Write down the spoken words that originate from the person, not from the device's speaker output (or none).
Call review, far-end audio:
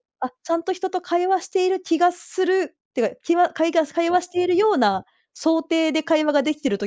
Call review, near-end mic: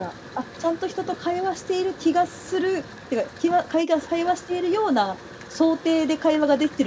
none